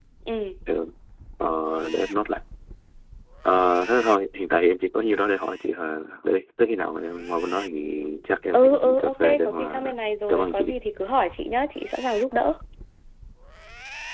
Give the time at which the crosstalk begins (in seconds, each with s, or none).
8.5 s